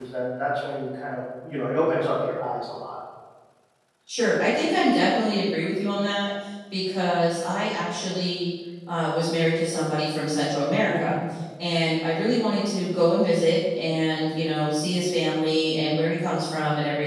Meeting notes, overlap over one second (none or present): none